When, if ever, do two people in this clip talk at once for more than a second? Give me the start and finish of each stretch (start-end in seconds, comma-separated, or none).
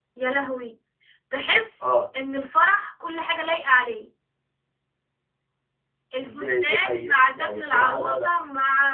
6.2-8.3